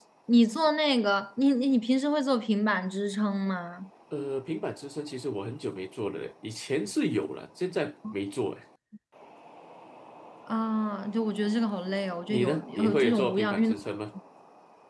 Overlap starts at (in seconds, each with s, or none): 12.3 s